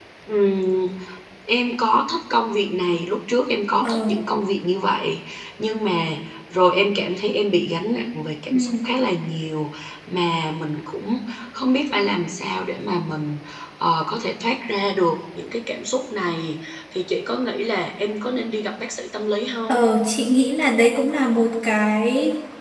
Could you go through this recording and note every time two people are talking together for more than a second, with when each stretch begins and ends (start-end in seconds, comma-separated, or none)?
none